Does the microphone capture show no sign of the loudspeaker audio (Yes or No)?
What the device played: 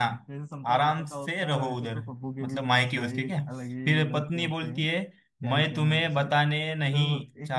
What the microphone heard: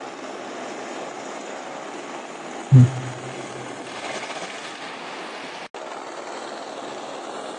Yes